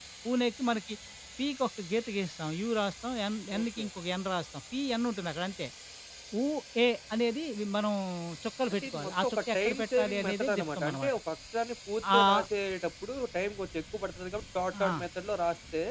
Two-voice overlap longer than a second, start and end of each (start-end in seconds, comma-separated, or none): 8.7-11.1